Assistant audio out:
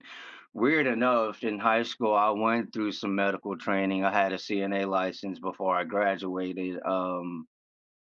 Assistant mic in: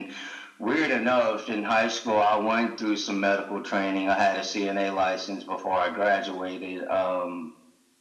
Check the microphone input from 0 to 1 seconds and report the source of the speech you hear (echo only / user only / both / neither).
echo only